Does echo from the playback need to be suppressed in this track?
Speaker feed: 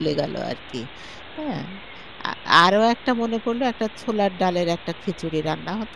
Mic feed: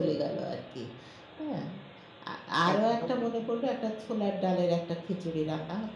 Yes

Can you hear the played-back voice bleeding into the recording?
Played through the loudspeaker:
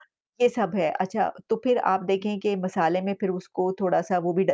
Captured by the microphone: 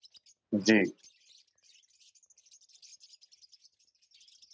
No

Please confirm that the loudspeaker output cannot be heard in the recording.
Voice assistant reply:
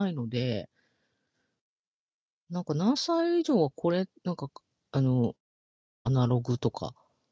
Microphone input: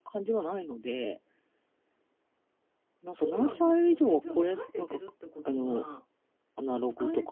No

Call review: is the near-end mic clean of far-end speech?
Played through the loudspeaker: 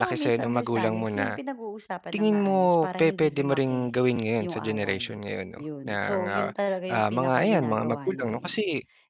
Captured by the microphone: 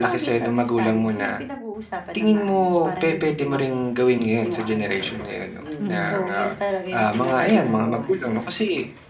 No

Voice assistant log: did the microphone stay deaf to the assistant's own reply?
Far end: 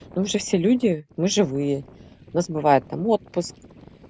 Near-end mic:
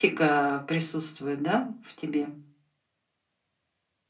Yes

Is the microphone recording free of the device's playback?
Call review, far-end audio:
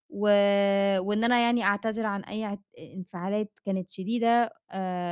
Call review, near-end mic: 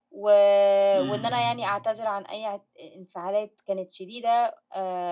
No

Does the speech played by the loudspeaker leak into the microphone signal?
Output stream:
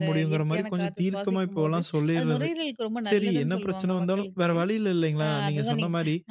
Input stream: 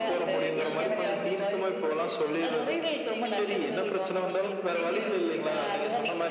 Yes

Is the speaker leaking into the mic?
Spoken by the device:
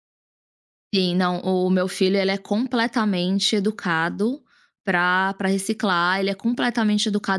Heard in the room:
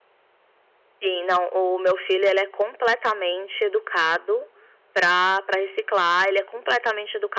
Yes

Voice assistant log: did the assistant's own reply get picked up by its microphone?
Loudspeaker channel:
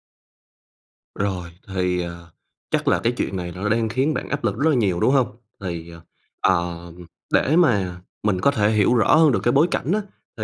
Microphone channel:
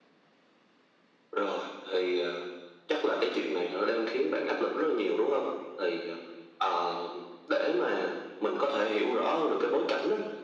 Yes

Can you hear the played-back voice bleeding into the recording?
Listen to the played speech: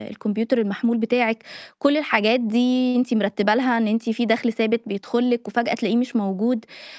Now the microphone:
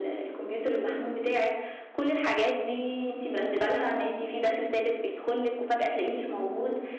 Yes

